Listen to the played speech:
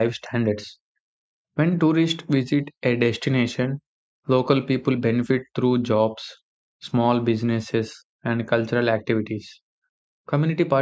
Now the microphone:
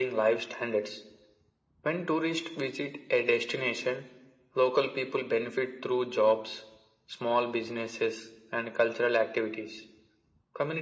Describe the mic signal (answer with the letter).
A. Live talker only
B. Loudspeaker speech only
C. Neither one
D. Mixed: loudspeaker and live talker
B